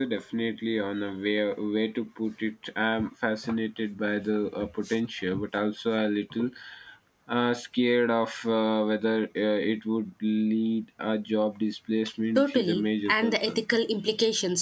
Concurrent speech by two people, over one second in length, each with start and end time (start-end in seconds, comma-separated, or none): 12.4-13.6